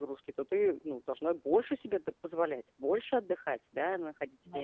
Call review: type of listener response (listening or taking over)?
listening